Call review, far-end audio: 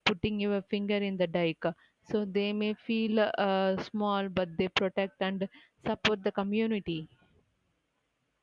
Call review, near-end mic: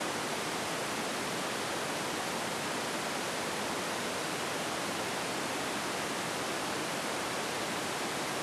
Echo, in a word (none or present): none